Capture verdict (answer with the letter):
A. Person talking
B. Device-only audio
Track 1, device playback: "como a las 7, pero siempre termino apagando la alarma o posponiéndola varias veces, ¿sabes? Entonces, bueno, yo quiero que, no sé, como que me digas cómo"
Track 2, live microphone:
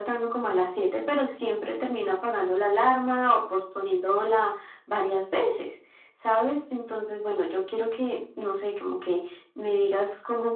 B